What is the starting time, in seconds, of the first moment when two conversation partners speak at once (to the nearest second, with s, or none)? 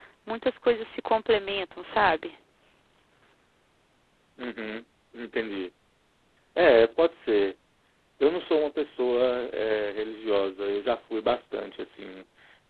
none